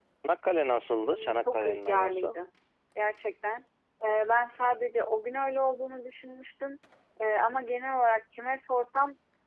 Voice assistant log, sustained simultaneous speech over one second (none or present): present